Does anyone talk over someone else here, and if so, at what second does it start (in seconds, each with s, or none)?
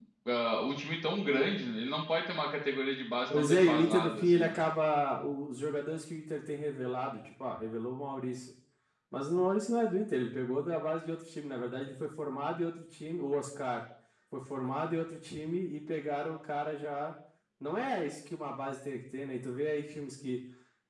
3.3 s